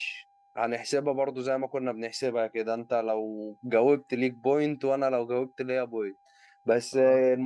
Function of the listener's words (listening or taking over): listening